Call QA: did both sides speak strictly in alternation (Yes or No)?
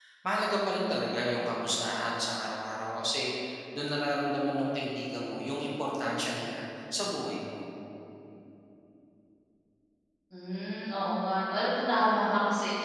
Yes